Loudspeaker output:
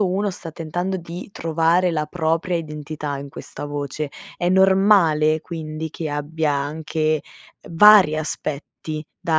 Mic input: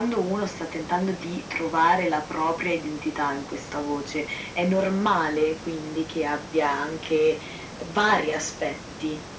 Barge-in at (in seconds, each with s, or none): none